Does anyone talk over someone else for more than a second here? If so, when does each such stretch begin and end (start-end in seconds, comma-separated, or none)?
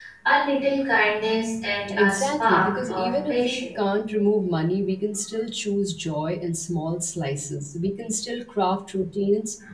2.0-3.7